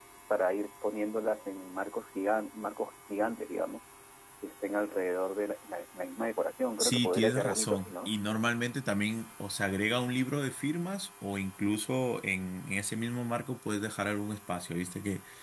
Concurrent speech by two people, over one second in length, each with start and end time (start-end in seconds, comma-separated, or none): 6.8-8.1